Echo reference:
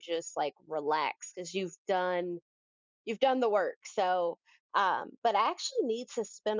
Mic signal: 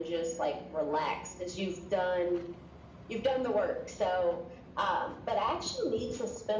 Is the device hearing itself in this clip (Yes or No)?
Yes